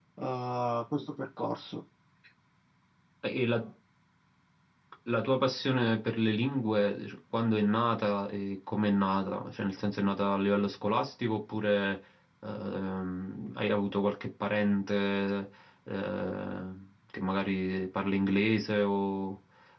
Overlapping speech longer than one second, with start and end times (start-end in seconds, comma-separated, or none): none